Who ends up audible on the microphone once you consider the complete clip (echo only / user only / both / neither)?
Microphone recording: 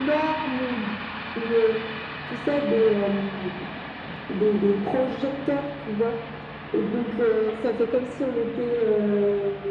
echo only